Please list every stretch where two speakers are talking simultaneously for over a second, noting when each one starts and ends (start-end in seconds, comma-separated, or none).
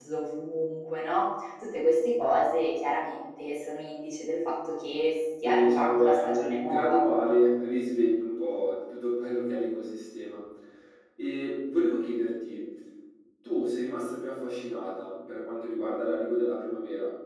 5.4-7.0